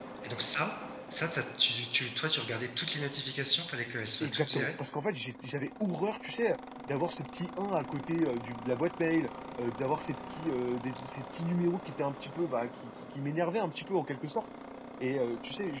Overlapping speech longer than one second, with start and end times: none

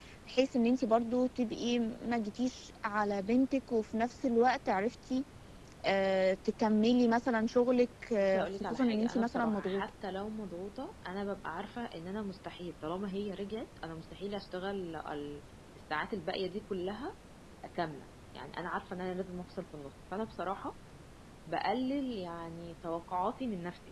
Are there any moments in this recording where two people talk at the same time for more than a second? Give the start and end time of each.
8.3-9.8

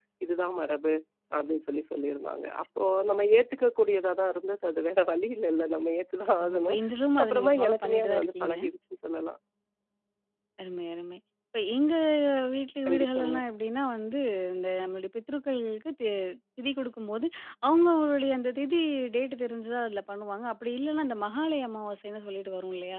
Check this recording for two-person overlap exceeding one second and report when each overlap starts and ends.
7.2-8.5

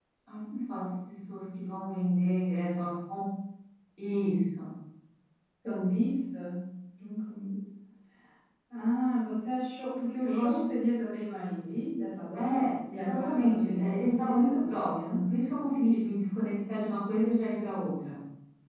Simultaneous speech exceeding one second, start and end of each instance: 12.3-15.5

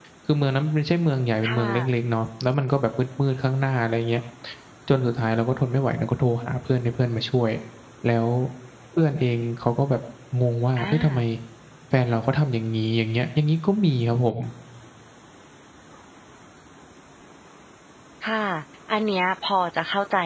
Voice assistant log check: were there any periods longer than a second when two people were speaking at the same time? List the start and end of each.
none

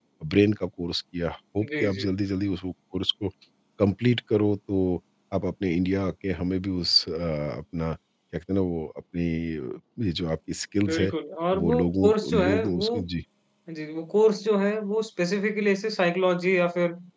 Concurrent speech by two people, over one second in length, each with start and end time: 11.5-13.0

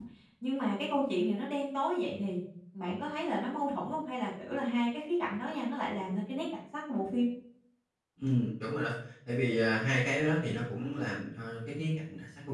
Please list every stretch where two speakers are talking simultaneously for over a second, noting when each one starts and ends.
none

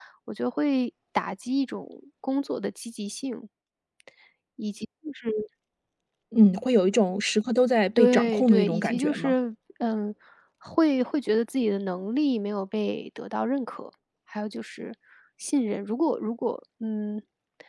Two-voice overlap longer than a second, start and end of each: 8.0-9.3

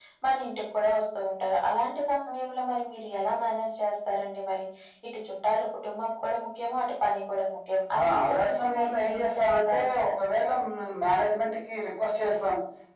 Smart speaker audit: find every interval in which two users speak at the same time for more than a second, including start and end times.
8.0-9.9

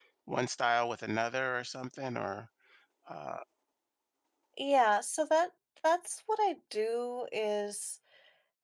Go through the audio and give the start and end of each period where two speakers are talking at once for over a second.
none

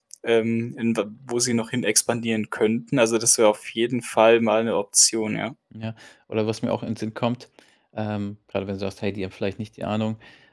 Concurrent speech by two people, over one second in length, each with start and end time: none

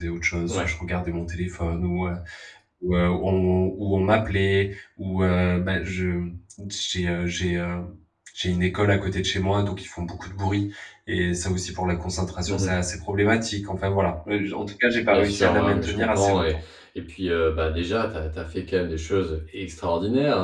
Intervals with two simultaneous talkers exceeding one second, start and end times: 15.1-16.4

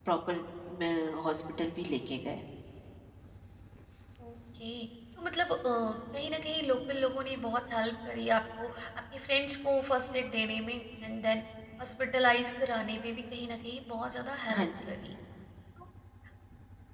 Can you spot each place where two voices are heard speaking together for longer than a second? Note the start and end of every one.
none

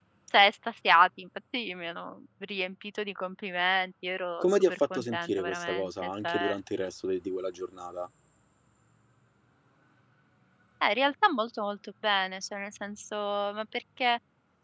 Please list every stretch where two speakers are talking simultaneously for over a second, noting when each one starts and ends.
4.4-6.3

